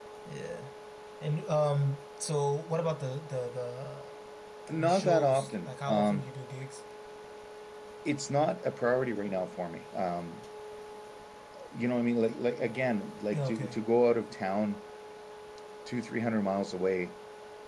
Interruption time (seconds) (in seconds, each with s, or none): 4.8 s